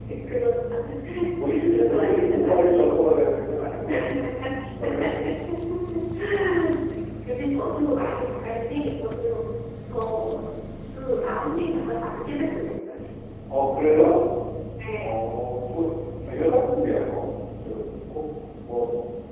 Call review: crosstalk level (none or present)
present